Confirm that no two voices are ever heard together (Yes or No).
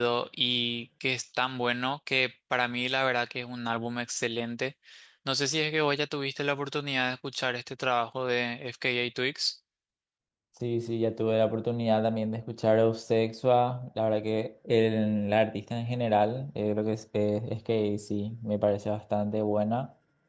Yes